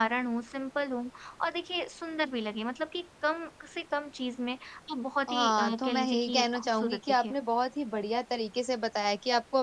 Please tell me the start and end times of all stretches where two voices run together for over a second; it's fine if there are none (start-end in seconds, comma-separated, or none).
5.3-7.3